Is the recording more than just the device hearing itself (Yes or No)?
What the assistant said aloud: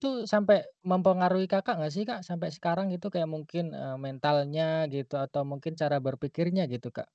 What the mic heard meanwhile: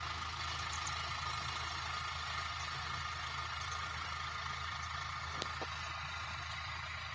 No